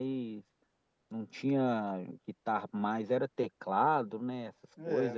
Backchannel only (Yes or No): No